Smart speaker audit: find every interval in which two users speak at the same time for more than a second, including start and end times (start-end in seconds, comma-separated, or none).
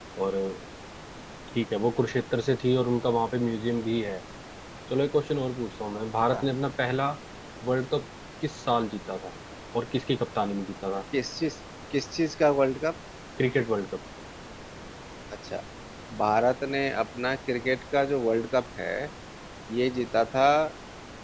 none